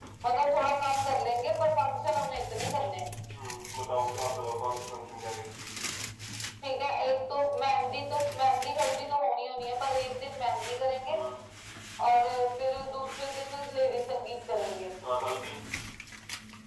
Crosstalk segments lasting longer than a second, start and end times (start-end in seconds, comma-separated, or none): none